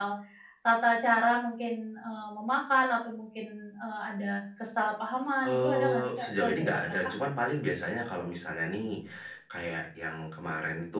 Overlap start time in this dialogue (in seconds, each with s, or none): 5.4 s